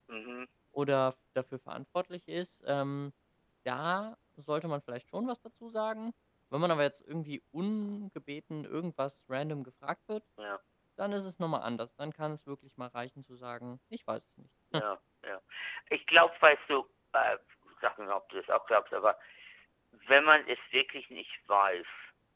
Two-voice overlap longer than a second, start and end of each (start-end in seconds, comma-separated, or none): none